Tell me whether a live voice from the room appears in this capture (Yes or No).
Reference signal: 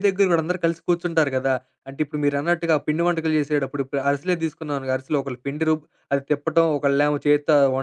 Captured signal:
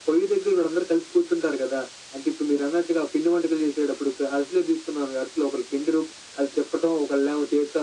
No